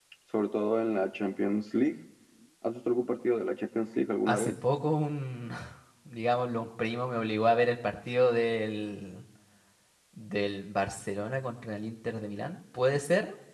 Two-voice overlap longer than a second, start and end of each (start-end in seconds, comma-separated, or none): none